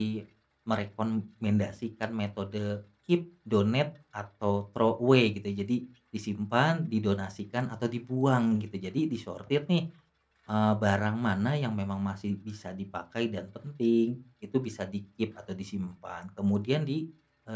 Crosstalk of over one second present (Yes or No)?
No